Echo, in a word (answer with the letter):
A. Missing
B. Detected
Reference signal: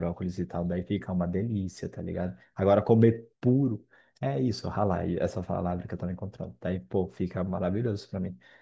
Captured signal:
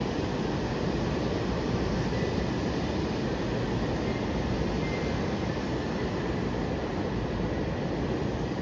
A